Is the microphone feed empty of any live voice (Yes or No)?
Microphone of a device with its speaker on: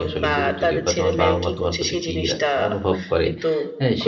No